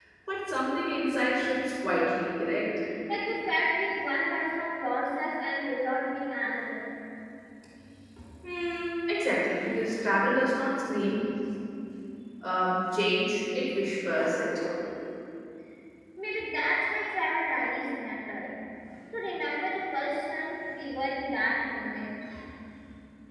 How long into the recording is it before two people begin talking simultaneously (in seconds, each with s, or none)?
none